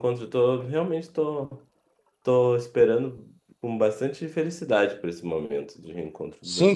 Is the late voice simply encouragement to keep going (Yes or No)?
No